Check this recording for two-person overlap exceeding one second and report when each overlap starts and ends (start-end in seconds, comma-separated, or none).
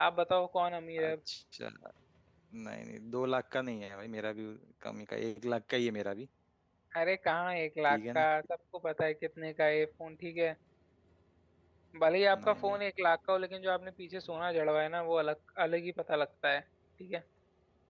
none